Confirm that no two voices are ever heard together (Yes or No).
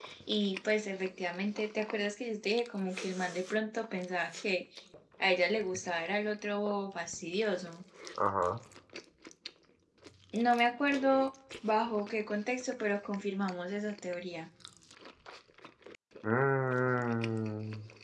Yes